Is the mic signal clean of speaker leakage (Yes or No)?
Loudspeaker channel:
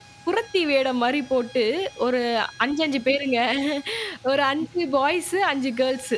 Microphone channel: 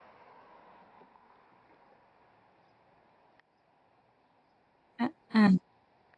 Yes